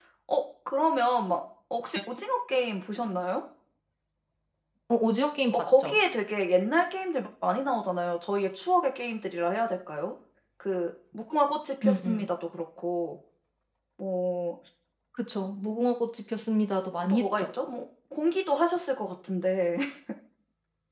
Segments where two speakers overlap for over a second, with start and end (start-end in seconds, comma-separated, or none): none